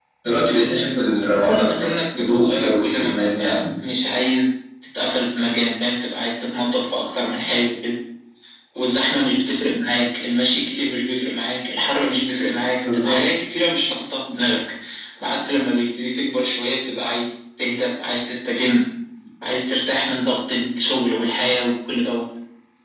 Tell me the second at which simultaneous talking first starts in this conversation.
1.4 s

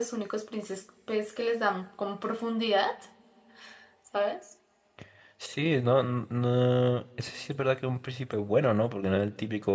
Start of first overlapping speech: none

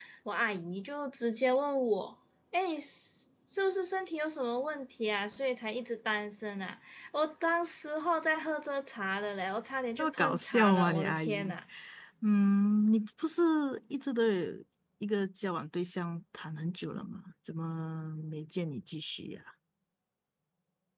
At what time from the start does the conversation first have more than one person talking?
10.0 s

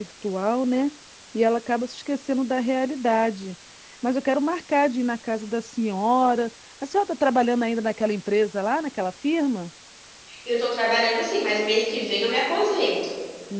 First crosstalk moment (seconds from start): none

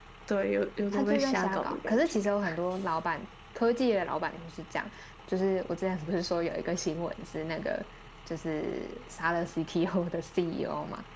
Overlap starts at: 0.9 s

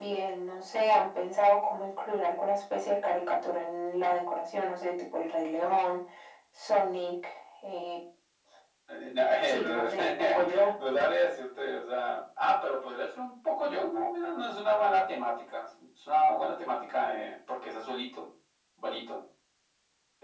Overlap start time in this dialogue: 9.4 s

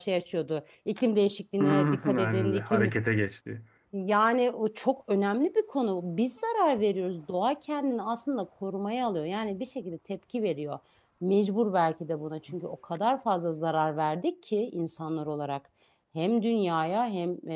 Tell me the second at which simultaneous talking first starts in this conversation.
1.6 s

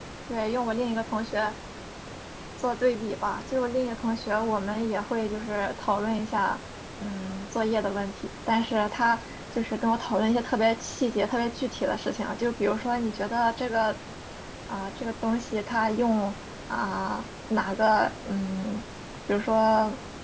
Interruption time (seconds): none

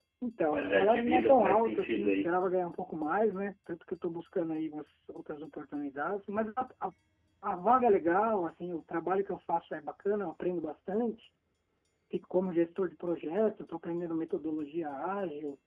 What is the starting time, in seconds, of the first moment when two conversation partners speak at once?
0.5 s

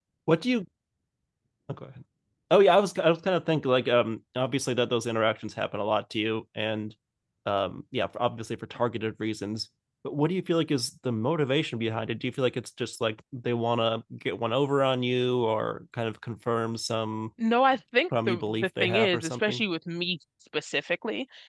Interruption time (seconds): 18.3 s

